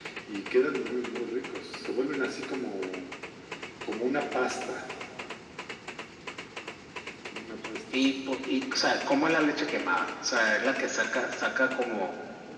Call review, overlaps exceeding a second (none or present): none